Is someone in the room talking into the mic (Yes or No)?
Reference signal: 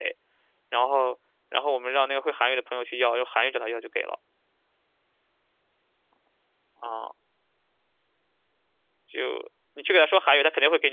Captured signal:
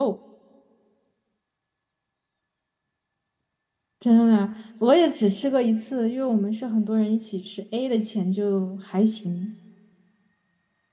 Yes